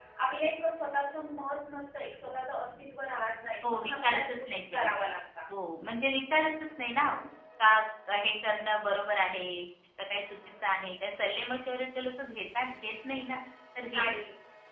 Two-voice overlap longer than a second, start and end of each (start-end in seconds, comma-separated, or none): 3.6-4.9